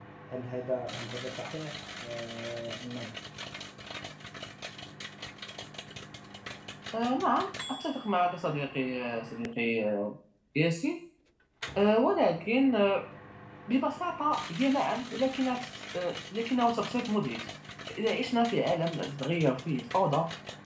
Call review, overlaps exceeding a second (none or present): none